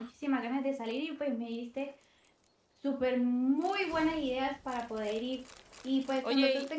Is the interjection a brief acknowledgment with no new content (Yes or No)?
Yes